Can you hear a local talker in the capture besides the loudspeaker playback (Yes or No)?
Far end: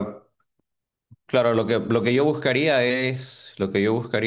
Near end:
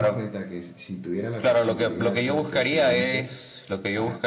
Yes